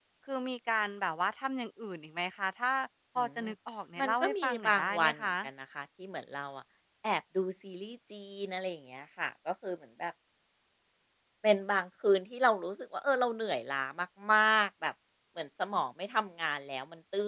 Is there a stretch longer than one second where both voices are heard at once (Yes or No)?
Yes